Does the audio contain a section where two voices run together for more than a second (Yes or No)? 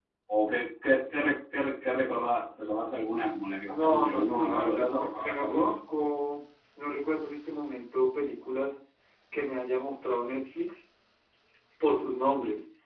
Yes